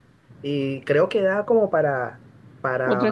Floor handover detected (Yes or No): No